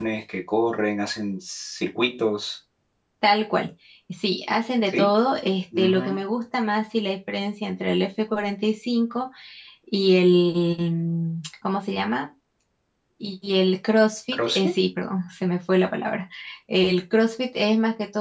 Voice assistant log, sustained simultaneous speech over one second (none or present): none